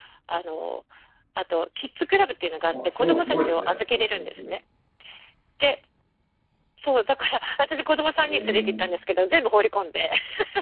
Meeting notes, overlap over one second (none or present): present